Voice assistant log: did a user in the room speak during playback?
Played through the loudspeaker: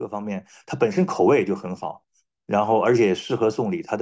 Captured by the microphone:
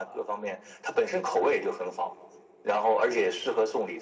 No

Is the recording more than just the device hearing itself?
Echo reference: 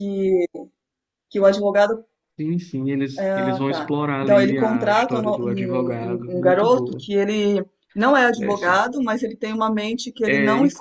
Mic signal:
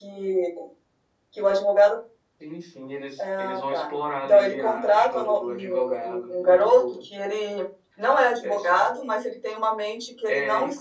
No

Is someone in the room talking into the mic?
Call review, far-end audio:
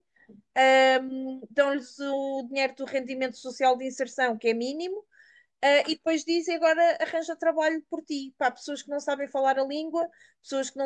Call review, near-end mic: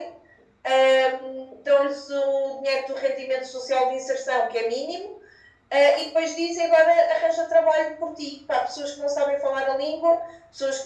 No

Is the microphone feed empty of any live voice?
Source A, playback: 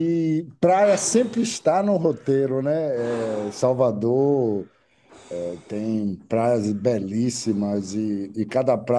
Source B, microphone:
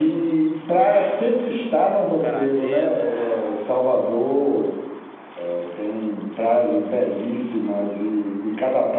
No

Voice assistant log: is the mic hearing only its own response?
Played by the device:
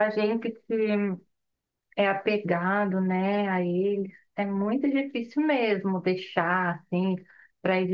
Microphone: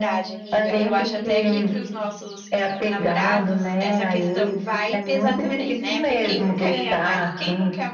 No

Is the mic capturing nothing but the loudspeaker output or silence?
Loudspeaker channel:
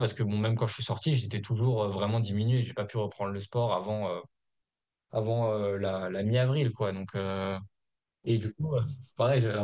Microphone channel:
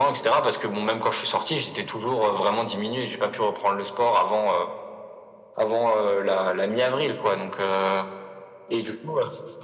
Yes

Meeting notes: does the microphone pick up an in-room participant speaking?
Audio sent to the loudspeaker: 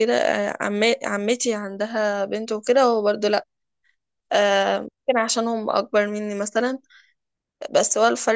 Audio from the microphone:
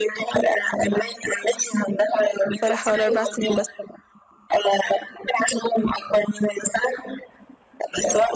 Yes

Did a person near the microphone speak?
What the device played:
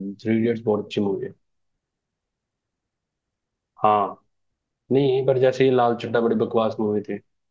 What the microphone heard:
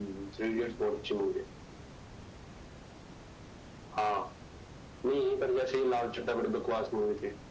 No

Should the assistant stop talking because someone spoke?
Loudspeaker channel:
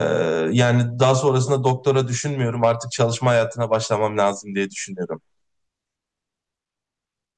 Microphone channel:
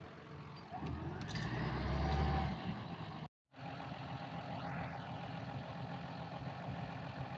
No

